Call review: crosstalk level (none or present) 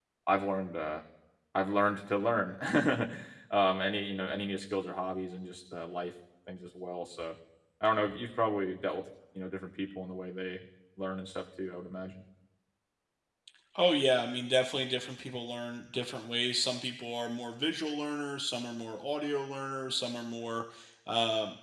none